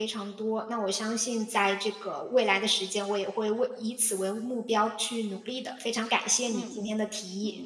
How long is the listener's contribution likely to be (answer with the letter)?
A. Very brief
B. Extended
B